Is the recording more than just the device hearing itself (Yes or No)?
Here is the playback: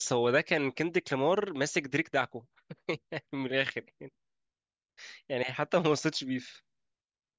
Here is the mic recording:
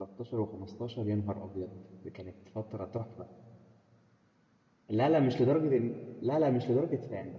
Yes